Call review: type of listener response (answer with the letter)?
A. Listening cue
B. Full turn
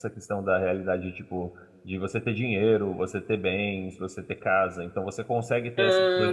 A